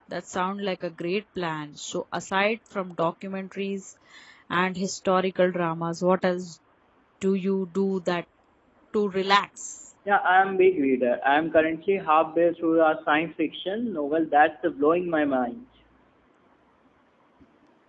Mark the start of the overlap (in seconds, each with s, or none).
none